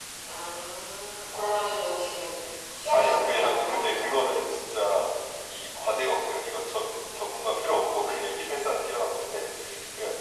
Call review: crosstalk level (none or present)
present